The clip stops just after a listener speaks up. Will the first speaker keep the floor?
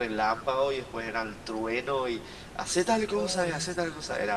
Yes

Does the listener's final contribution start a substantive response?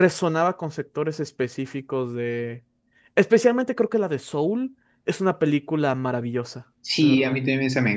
Yes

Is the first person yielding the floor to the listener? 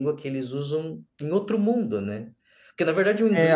No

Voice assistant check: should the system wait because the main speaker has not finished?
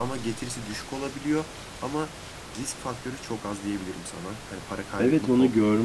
No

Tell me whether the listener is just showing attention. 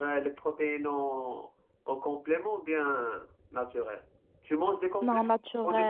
No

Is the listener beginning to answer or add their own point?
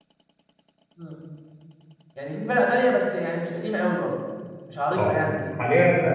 Yes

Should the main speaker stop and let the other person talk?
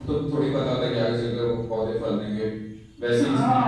Yes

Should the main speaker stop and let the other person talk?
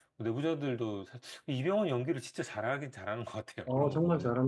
Yes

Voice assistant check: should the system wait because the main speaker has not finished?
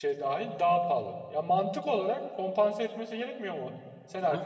Yes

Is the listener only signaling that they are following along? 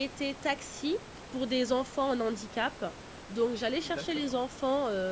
Yes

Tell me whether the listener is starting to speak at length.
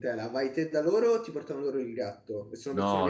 Yes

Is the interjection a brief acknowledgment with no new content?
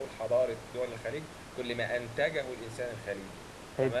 Yes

